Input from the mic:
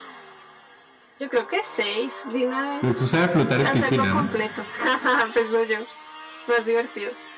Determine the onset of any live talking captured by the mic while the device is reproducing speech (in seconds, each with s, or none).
2.8 s